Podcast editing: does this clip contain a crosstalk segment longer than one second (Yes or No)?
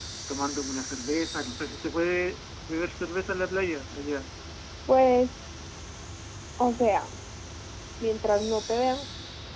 No